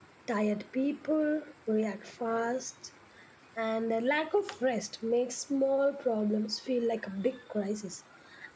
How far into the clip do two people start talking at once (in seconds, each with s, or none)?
none